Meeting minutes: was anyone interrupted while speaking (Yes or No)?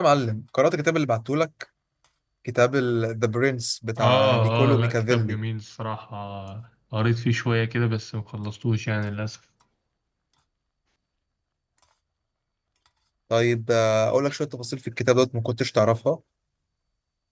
Yes